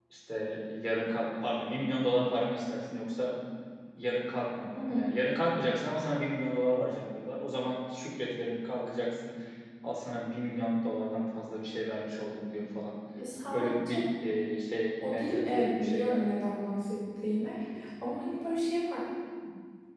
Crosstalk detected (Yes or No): Yes